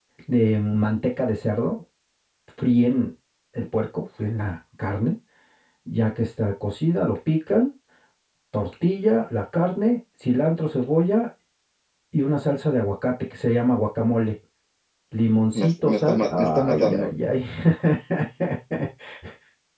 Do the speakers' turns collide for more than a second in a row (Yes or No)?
Yes